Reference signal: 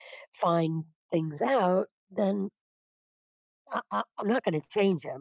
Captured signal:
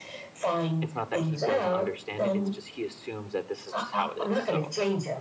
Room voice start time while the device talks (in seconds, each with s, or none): 0.8 s